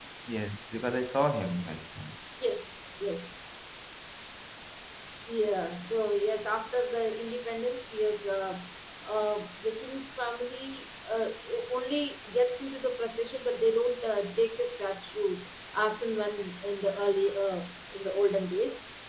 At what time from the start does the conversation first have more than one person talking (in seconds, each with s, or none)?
none